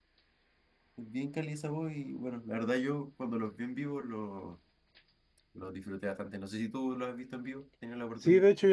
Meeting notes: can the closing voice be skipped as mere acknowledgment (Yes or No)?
No